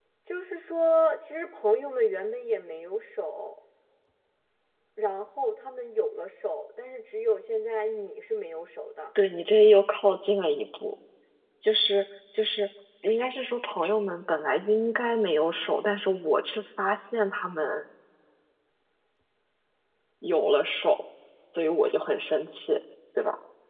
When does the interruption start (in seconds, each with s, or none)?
none